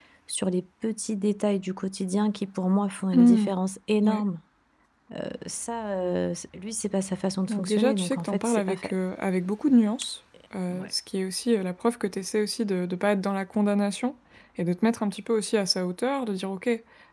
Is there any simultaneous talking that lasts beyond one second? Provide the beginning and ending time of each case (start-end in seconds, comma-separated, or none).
7.5-8.9